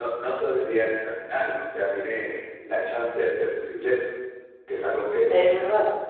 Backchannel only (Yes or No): Yes